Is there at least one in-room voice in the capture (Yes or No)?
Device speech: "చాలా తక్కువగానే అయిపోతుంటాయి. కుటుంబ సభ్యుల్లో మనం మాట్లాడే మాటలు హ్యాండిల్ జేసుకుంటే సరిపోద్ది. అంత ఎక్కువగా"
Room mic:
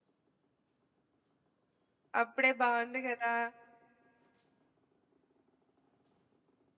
Yes